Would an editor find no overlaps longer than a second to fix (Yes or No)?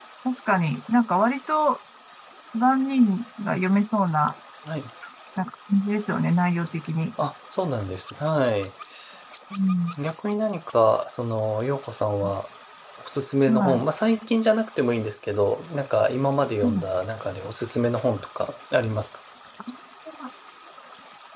Yes